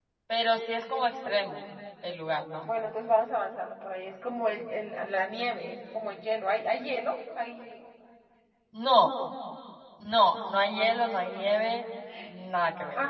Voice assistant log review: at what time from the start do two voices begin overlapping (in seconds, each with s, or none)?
none